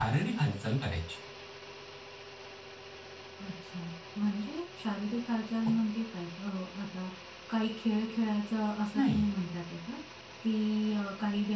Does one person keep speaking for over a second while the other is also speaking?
No

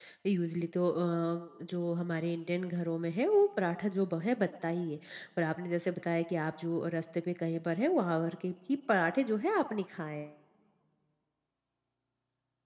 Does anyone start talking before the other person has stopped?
No

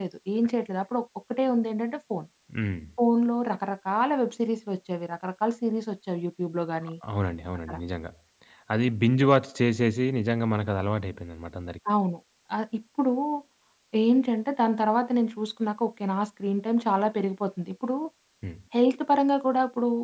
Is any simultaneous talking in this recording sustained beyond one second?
No

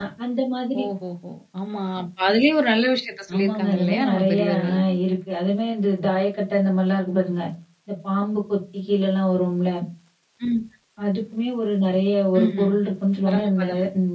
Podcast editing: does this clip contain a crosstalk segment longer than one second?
Yes, from 3.4 s

